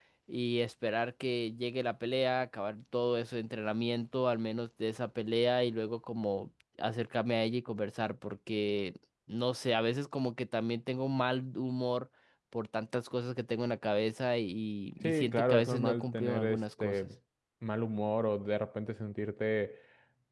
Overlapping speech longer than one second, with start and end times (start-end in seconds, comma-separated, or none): 15.0-17.1